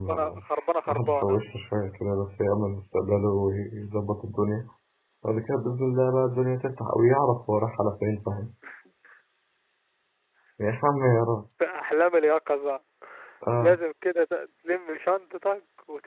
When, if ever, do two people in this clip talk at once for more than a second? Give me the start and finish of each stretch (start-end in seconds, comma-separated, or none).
none